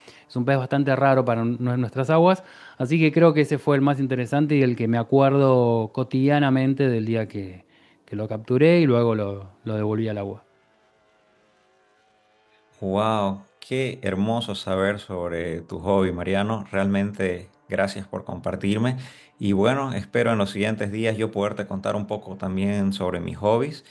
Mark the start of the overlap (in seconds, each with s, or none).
none